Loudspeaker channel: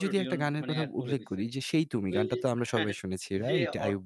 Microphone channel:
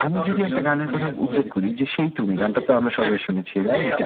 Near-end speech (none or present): none